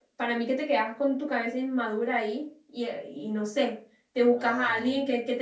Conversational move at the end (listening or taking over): listening